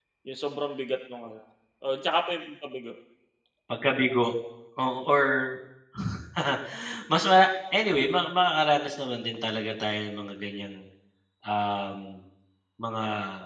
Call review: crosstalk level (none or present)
none